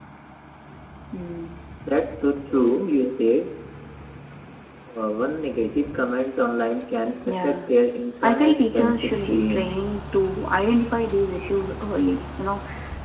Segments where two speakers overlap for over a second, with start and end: 8.2-9.7

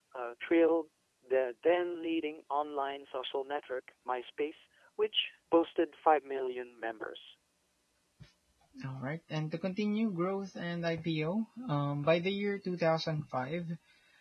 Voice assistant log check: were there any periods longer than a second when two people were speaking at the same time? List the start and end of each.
none

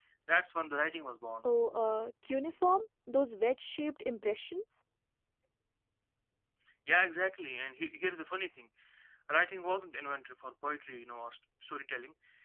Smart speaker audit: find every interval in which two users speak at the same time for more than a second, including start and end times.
none

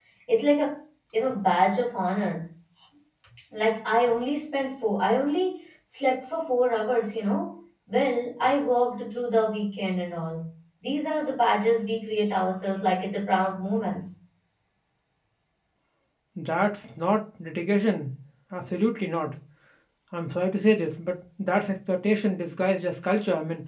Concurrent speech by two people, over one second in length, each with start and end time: none

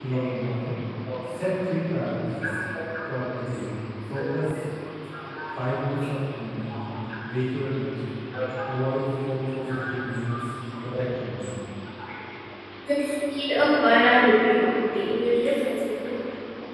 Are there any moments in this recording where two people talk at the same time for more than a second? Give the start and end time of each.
none

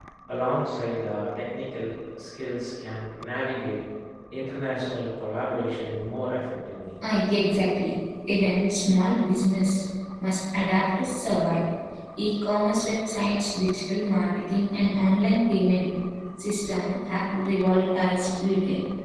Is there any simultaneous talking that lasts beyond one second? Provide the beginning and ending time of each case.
none

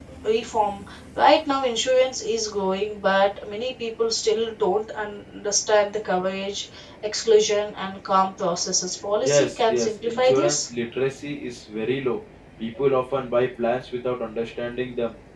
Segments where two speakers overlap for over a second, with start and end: 9.2-10.7

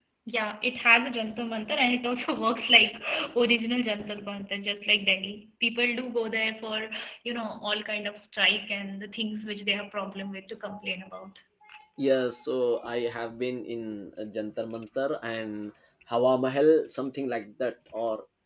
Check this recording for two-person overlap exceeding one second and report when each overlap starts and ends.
none

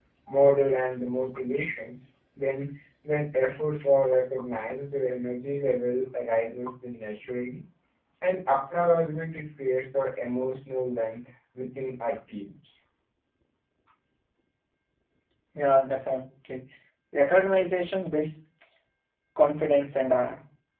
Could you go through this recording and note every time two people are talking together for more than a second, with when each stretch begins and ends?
none

